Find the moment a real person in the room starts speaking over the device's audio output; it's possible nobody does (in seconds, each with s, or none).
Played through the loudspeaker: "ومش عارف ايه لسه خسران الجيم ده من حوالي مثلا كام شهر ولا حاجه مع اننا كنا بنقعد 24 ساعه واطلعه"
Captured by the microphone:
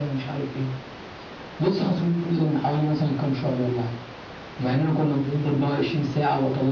none